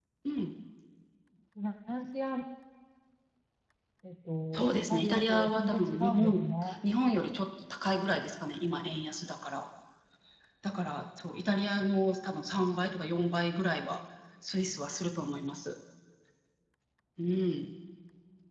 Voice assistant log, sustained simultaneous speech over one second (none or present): present